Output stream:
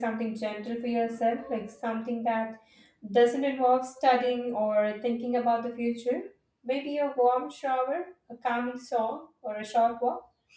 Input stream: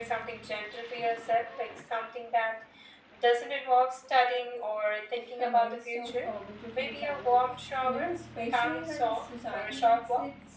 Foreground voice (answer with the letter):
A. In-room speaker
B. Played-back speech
B